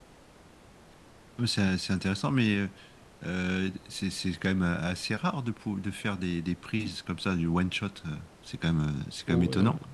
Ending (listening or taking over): taking over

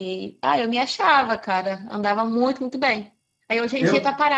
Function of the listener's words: listening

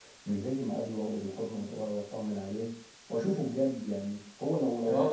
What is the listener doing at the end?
taking over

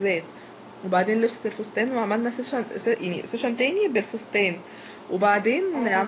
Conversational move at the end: listening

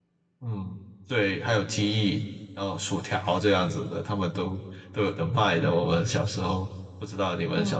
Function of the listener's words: taking over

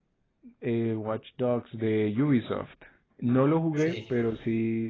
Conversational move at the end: listening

